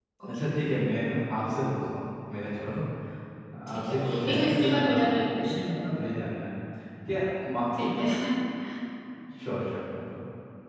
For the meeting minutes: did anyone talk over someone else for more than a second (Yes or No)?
Yes